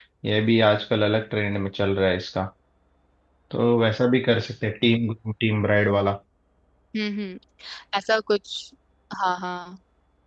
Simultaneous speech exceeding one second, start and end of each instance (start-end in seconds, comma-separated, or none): none